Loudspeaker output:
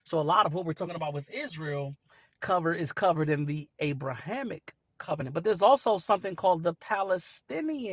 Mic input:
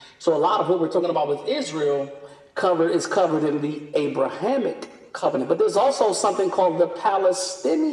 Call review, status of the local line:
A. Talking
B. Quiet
B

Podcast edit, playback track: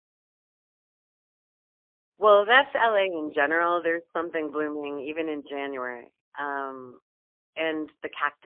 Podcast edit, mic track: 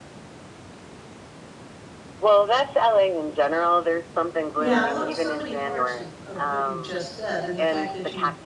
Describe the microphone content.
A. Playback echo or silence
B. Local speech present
B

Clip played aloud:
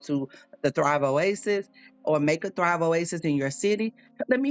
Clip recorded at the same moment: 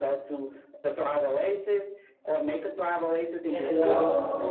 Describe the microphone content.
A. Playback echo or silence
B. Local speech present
B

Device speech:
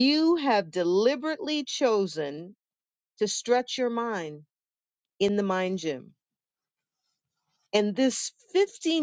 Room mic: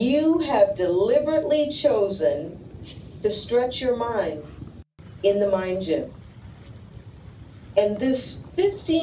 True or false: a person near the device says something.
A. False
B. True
A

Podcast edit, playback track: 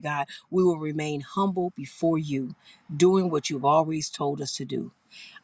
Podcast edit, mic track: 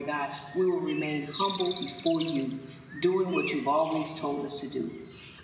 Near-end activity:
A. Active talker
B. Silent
B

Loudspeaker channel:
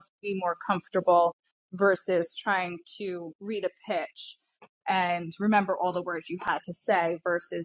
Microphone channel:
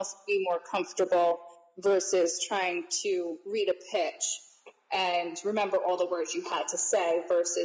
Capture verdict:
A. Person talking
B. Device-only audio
B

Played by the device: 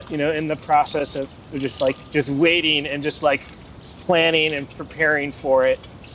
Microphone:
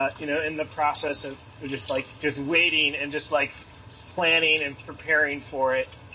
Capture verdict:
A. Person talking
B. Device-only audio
B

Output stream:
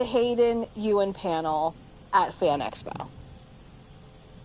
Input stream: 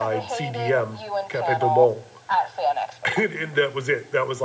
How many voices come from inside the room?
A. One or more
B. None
A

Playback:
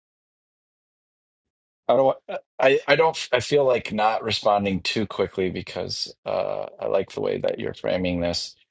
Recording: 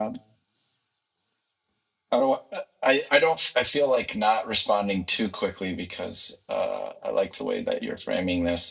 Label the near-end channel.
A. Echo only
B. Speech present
A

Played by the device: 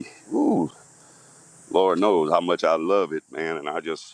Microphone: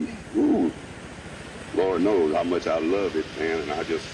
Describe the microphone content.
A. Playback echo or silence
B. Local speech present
A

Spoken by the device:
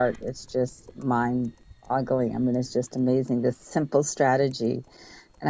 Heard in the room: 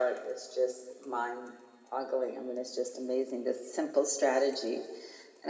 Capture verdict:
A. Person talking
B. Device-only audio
B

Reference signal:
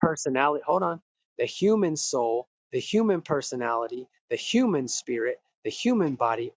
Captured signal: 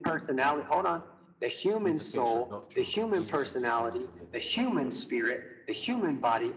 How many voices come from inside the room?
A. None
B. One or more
B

